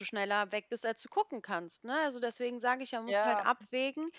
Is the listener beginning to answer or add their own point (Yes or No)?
No